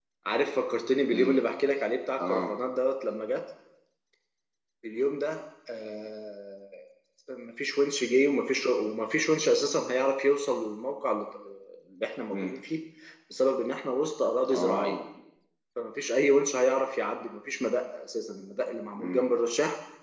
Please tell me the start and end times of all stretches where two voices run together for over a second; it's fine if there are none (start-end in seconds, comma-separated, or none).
none